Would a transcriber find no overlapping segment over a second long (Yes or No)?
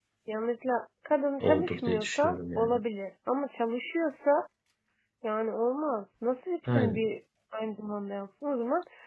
No